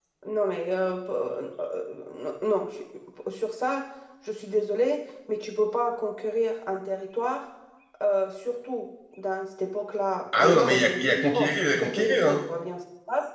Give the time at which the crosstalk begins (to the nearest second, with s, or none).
10 s